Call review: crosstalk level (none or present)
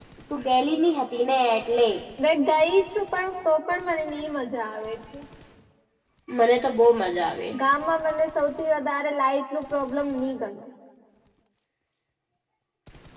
none